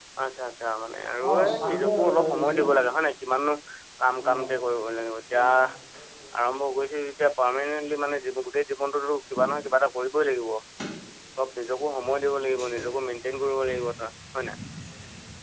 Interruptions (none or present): present